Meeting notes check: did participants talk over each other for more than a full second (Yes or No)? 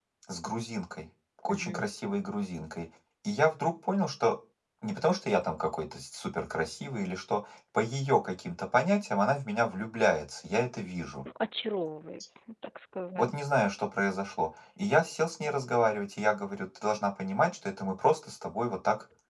No